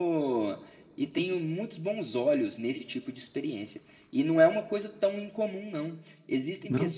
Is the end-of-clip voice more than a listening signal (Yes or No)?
No